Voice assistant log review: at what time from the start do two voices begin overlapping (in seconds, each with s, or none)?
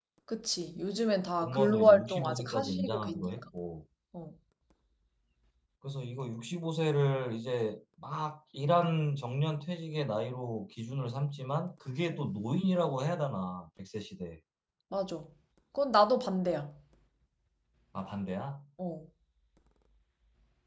1.4 s